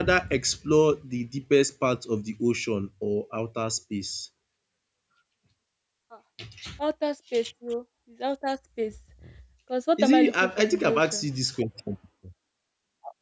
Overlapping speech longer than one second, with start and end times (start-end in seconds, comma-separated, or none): 10.0-11.2